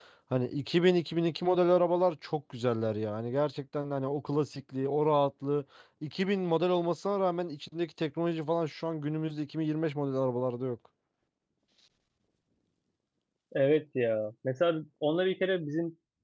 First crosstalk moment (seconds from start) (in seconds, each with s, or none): none